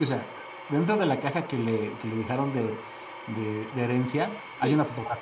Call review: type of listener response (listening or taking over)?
listening